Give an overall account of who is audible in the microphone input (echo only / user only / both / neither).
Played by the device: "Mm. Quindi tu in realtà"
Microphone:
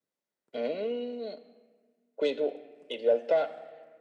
echo only